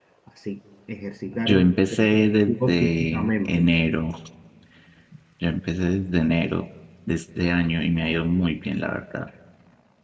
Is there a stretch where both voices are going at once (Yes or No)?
Yes